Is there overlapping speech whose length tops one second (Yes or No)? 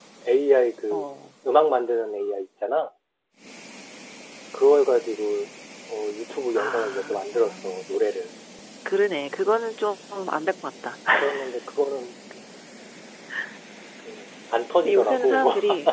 Yes